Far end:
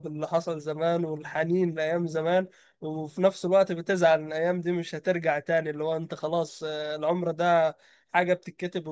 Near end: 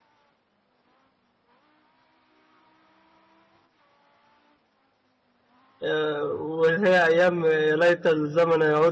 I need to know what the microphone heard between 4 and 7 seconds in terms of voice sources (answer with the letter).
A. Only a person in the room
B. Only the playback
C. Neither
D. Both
A